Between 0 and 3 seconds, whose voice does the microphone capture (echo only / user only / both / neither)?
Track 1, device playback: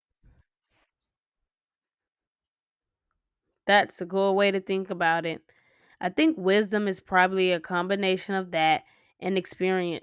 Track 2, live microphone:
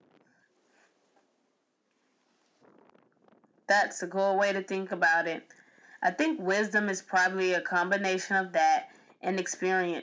neither